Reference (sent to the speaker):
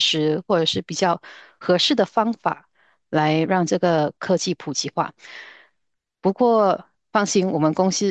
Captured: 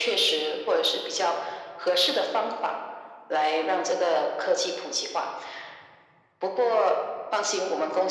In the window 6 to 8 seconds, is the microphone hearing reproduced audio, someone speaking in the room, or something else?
echo only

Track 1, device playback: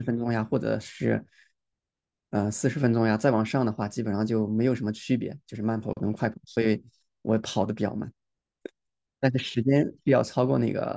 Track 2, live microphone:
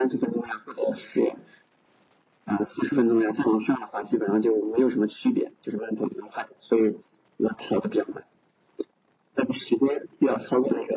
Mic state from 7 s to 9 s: echo only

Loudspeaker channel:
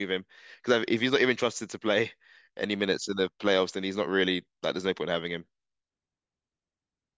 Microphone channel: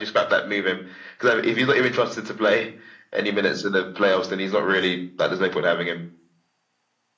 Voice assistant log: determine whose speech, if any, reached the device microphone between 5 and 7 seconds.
echo only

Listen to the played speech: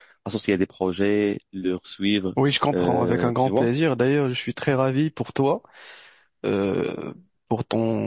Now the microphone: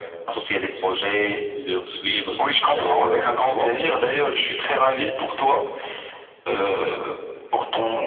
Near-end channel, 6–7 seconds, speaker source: echo only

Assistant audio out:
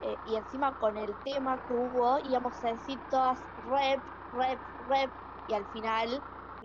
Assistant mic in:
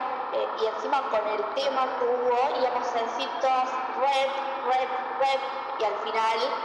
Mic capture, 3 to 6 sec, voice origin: echo only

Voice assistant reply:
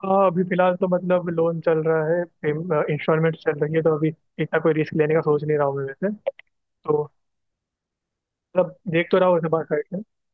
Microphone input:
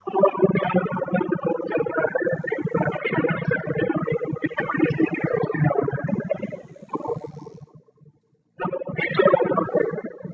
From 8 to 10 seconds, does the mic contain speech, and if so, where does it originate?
echo only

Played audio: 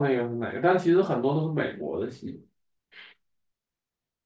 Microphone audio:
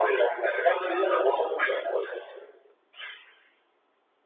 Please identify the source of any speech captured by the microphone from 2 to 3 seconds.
echo only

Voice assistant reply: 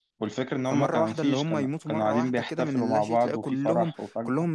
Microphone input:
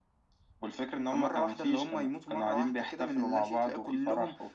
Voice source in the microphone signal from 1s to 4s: echo only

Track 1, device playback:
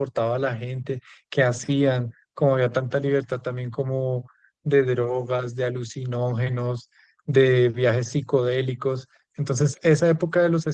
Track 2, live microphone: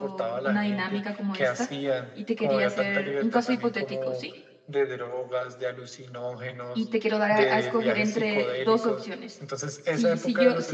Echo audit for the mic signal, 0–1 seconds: both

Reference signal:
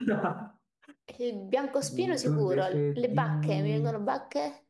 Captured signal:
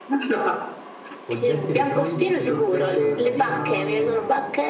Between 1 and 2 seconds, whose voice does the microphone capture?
both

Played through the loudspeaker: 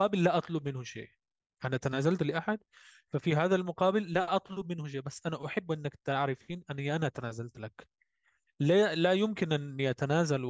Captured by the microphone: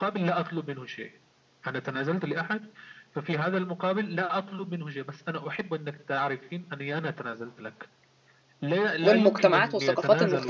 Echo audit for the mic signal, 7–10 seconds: both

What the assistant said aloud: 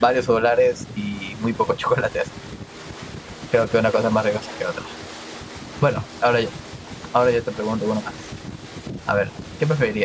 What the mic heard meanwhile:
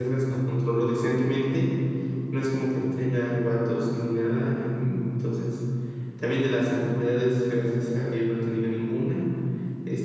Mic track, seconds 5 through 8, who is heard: user only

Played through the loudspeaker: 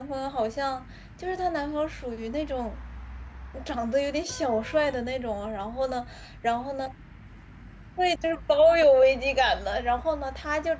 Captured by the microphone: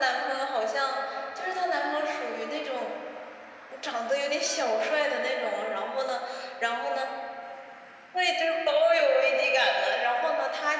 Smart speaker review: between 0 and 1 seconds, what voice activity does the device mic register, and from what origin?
echo only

